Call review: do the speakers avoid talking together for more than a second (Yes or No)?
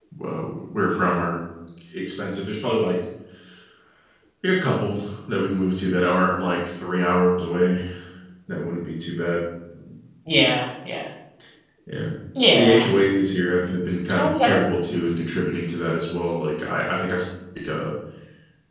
Yes